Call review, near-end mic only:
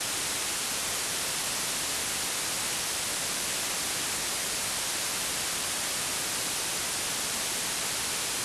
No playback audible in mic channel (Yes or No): Yes